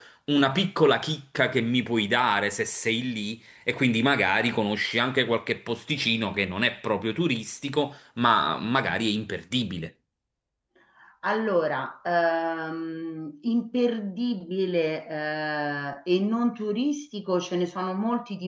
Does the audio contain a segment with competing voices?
No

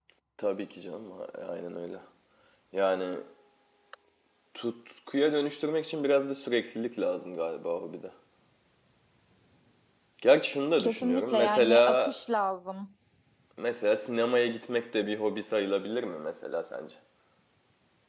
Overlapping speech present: Yes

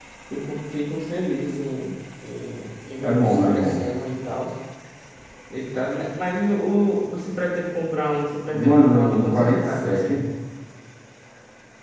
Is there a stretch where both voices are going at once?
Yes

